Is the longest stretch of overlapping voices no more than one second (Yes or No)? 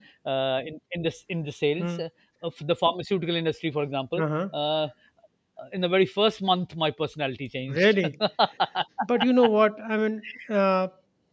Yes